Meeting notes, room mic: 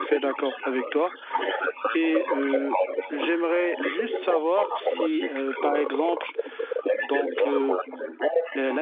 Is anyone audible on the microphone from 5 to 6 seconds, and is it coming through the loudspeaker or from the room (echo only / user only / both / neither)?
both